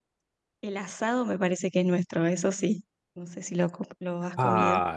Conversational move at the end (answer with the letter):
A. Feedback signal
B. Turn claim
B